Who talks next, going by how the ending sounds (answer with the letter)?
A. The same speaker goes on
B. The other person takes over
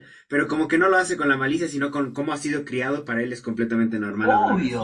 B